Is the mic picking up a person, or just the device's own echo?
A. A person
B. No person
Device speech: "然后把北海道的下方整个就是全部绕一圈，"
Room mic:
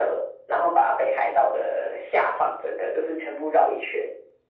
B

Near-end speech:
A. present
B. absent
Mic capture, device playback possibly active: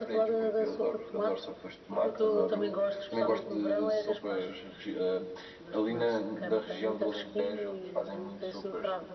B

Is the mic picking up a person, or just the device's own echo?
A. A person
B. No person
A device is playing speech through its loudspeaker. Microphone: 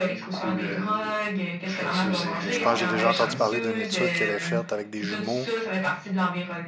A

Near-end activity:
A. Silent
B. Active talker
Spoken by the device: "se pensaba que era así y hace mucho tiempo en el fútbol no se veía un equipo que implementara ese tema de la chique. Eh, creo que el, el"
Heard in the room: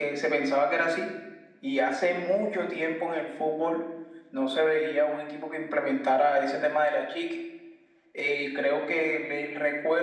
A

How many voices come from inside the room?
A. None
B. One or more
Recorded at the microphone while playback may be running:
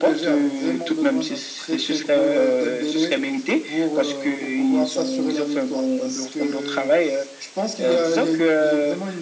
A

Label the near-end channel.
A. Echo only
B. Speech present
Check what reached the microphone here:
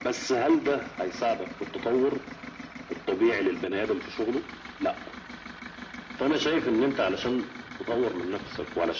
A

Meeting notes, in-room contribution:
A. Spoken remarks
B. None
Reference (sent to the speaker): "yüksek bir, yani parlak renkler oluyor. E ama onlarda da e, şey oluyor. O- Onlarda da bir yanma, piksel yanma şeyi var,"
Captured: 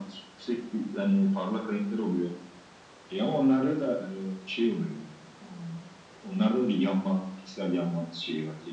B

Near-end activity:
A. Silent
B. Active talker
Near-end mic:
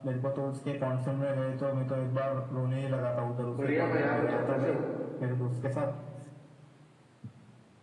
B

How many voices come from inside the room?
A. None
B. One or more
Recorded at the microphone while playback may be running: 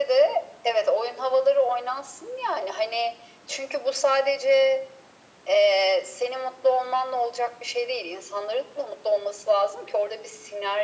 A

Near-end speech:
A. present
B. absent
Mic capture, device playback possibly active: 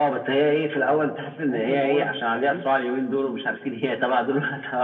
A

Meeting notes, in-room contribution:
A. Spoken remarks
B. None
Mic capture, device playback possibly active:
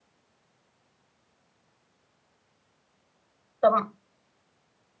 A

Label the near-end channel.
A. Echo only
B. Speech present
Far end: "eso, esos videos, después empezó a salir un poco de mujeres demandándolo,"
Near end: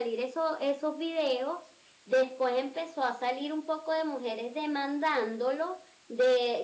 A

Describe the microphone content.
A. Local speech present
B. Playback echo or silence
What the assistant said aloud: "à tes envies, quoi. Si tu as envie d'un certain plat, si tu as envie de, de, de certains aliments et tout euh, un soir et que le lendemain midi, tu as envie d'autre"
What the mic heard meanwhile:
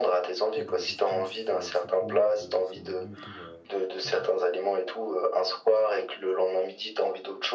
A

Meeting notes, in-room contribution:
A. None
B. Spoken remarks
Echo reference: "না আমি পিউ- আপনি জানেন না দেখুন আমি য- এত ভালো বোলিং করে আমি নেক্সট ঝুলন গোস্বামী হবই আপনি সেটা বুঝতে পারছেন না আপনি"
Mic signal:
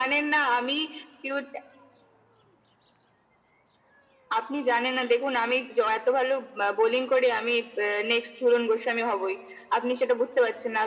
A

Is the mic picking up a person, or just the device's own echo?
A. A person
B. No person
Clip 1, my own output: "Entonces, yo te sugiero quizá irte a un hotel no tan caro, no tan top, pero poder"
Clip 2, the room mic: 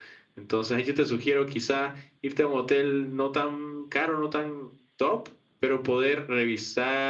B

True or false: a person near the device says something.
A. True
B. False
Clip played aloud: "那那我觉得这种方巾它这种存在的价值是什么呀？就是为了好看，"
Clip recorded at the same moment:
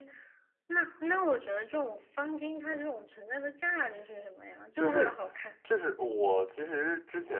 A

